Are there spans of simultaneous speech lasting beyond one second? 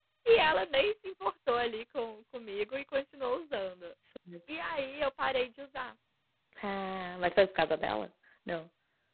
No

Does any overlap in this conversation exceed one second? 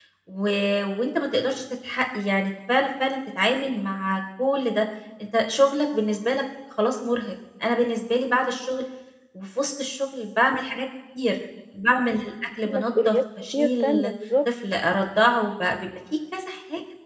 Yes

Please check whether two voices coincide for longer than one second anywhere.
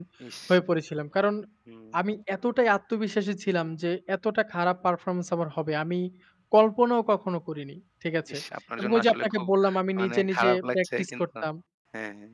Yes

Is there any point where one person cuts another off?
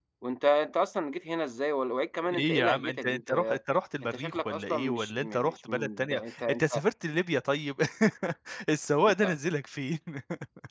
Yes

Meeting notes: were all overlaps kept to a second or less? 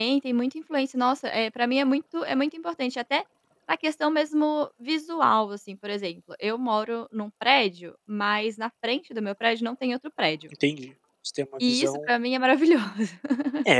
Yes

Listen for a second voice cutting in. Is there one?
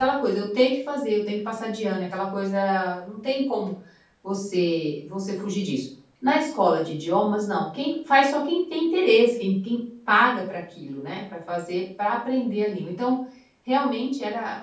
No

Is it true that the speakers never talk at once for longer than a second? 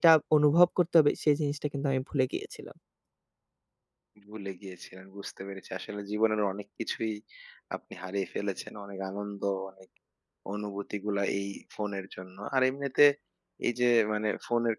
Yes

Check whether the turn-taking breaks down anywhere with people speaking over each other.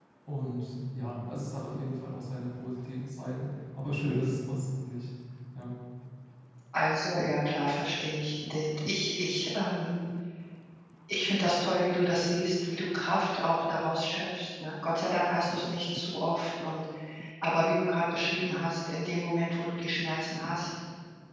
No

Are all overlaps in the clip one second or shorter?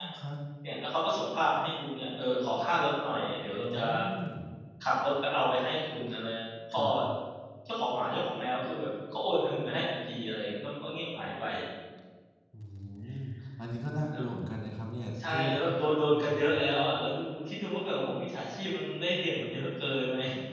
Yes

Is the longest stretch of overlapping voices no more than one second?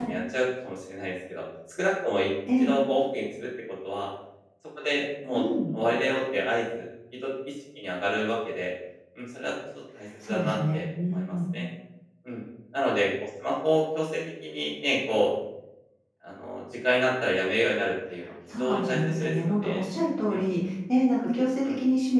No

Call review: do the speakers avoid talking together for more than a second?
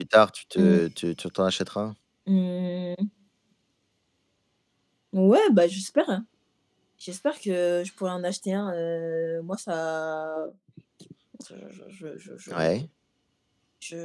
Yes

